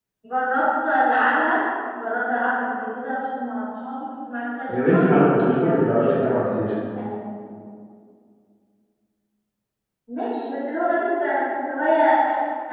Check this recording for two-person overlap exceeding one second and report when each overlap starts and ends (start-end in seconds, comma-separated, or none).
4.7-6.3